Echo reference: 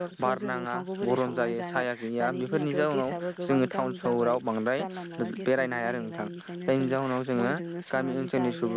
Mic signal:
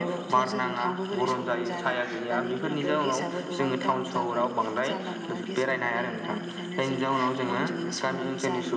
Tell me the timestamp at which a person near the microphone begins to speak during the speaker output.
none

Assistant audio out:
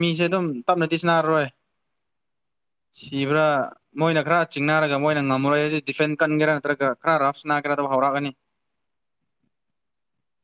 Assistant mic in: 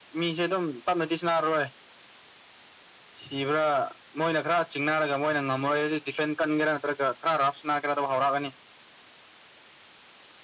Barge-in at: none

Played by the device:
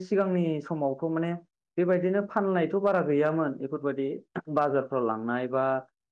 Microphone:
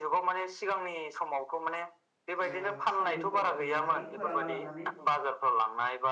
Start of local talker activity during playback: 2.5 s

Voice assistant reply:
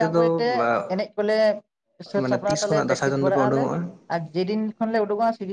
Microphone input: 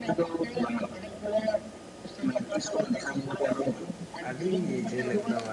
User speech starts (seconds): 4.3 s

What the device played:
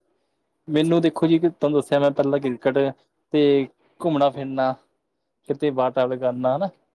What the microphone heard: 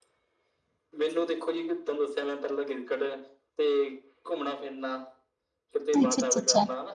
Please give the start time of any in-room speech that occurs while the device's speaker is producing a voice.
6.0 s

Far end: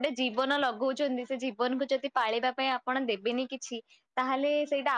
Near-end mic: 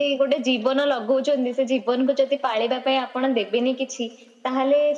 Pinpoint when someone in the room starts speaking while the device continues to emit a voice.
none

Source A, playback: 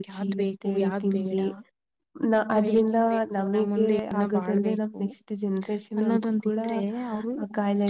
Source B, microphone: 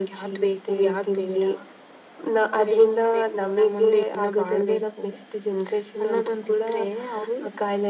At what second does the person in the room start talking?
none

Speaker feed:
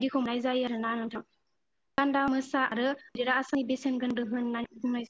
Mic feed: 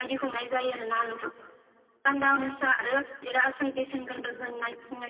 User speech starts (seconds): none

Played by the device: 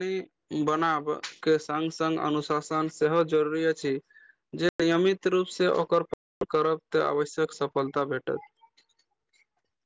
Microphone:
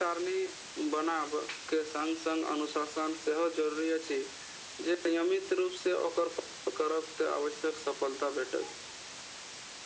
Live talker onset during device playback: none

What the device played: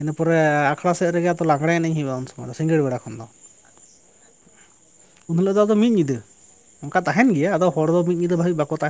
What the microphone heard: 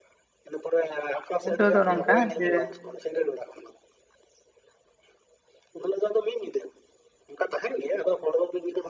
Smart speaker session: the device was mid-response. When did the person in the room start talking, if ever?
1.4 s

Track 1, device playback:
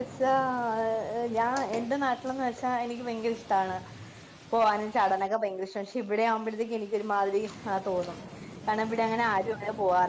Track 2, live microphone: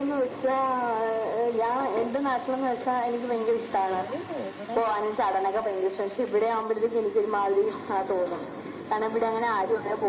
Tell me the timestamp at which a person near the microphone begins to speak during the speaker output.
3.3 s

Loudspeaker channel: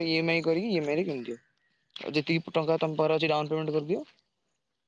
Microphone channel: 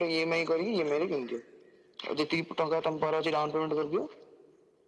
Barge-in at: none

